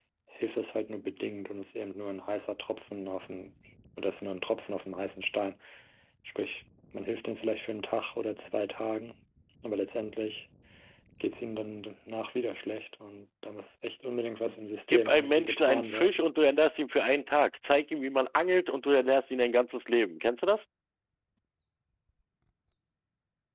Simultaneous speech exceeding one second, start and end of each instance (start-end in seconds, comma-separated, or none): 14.9-16.2